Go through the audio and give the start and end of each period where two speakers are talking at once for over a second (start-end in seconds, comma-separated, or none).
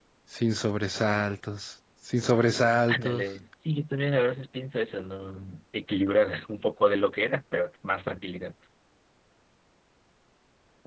none